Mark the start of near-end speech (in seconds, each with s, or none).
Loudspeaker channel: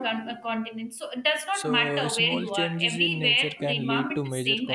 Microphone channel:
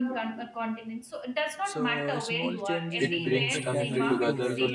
3.0 s